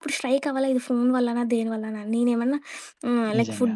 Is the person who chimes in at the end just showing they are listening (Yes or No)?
Yes